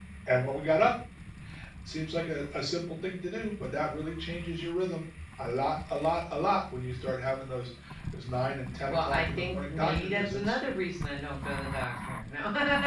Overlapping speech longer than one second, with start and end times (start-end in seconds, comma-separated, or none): 8.9-10.6